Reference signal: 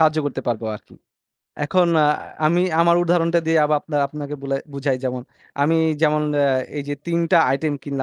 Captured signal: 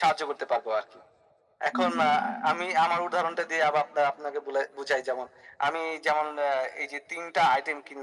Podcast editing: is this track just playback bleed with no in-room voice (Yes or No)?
No